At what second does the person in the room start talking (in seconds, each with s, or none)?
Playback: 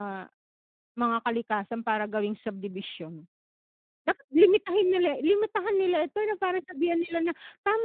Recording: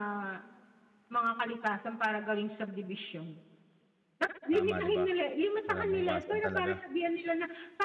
4.5 s